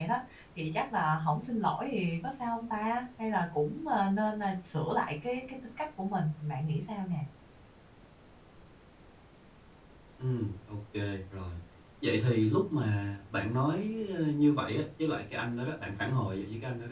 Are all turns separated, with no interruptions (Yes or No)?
Yes